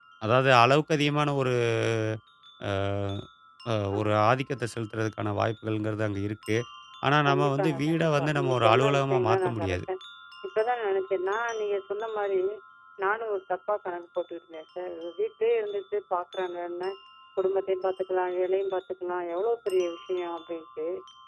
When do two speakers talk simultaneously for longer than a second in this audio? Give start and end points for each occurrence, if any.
7.3-9.8

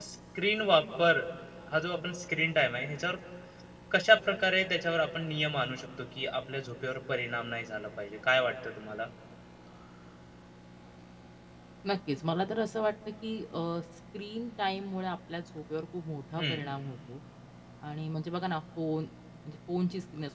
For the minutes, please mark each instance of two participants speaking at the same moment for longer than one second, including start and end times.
none

